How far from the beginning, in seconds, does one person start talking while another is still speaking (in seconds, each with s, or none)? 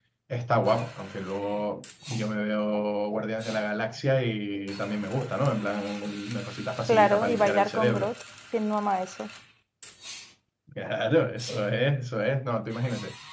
6.9 s